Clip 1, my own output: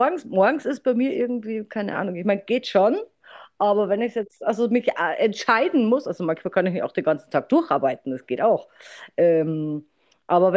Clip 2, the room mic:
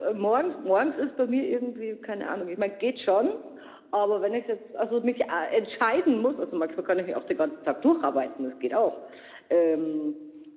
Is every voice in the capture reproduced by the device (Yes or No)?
Yes